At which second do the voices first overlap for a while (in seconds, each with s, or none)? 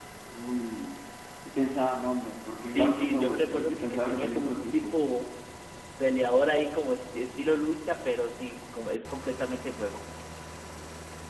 2.6 s